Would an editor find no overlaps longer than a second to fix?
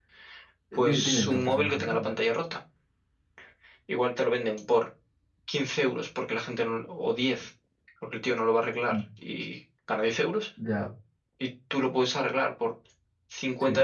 No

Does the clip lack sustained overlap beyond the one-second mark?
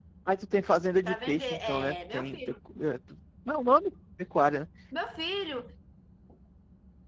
No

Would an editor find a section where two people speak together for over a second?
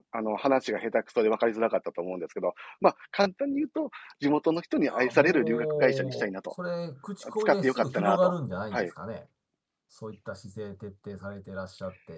Yes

